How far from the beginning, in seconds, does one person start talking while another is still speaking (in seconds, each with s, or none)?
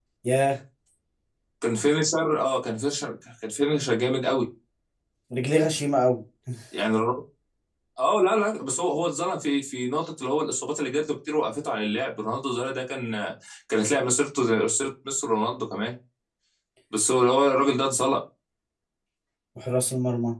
none